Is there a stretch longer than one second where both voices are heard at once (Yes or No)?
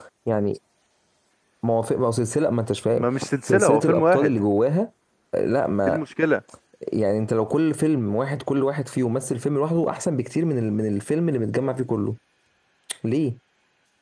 Yes